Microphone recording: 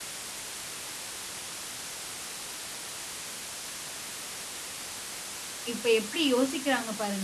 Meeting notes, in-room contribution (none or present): present